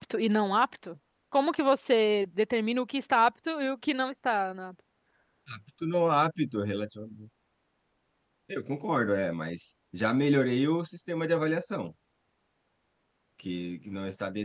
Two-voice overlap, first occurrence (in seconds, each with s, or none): none